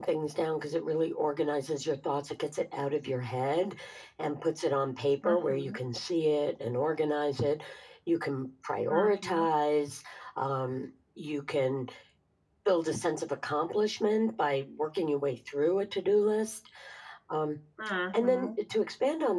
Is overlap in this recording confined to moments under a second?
Yes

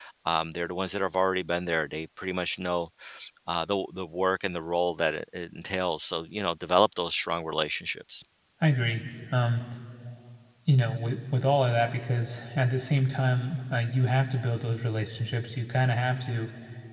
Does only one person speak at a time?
Yes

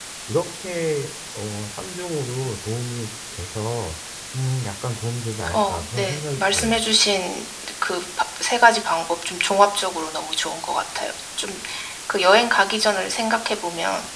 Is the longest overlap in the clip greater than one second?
Yes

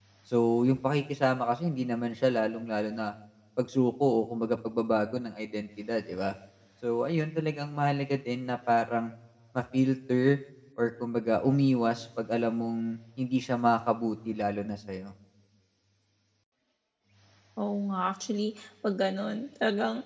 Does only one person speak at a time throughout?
Yes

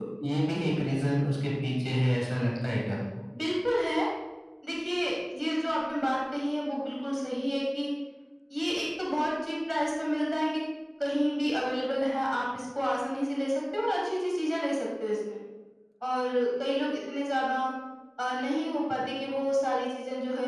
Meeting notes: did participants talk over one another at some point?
No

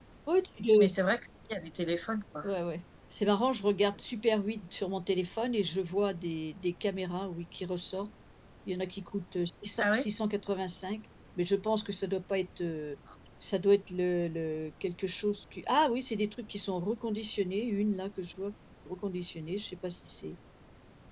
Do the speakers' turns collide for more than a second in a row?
No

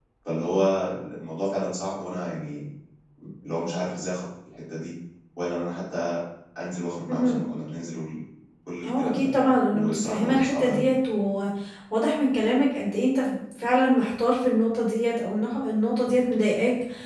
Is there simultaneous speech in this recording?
Yes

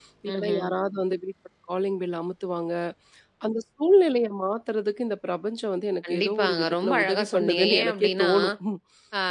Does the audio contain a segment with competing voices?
Yes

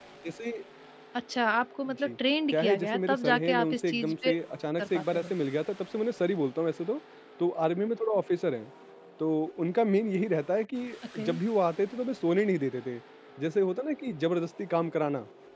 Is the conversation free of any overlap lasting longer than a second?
No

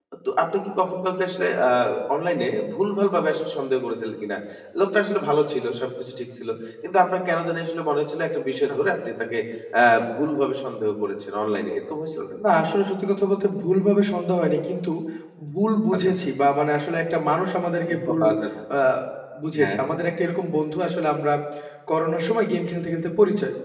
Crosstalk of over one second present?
No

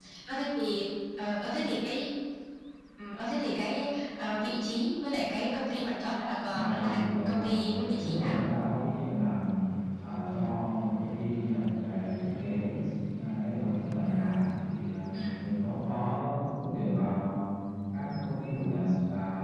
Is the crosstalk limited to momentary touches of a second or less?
No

